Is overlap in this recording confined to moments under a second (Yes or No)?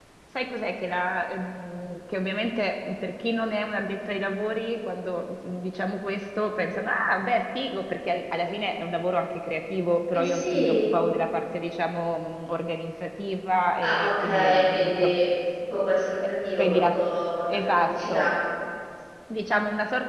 No